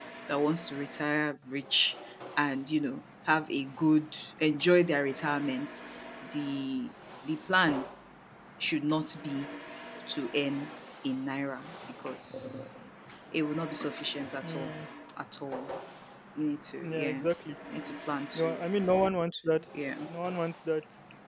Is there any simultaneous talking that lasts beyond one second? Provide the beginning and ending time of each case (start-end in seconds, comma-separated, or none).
none